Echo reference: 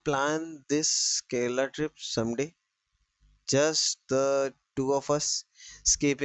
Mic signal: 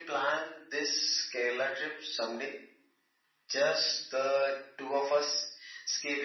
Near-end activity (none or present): none